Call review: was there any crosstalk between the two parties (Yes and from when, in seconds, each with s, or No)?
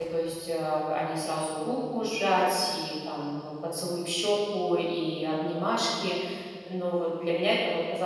No